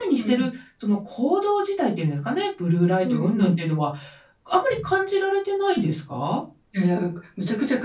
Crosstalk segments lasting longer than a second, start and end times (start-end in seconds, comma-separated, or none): none